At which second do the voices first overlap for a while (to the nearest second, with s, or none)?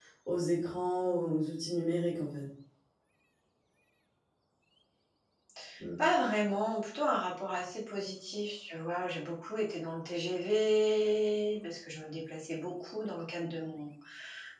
none